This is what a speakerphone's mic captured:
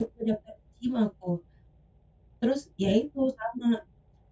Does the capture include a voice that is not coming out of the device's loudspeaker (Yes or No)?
Yes